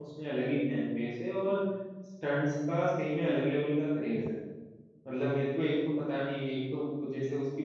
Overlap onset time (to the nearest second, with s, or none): none